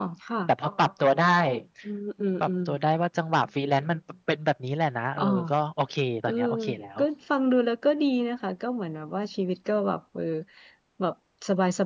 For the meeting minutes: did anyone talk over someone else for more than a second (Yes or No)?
No